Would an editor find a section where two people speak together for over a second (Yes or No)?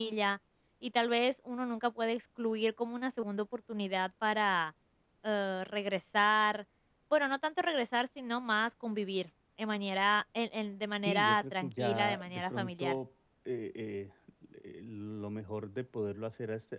Yes